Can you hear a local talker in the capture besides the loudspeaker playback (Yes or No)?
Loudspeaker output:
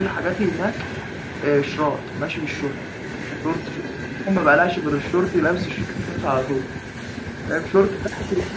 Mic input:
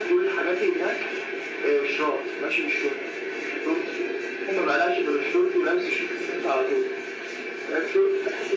No